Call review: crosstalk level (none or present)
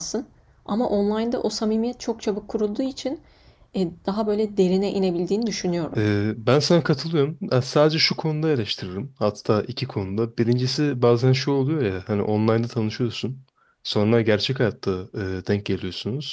none